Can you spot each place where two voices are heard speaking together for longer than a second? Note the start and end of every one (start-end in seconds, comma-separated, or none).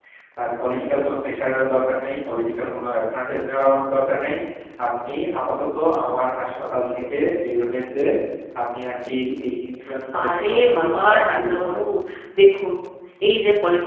10.2-11.7